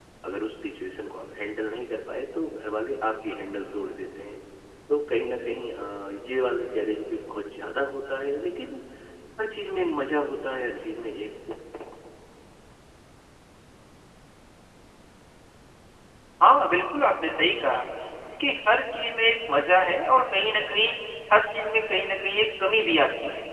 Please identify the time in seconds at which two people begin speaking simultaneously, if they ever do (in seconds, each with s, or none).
none